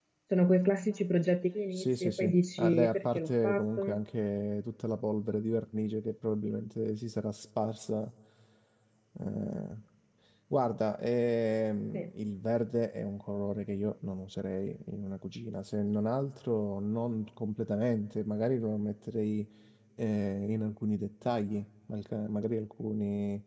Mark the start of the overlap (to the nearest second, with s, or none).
2 s